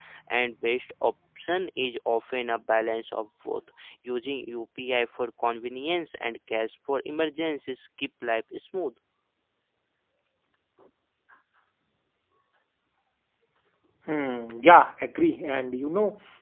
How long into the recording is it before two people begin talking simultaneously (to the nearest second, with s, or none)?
none